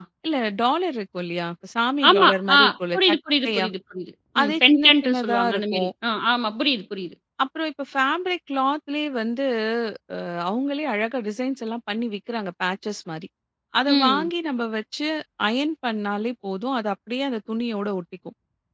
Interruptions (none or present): present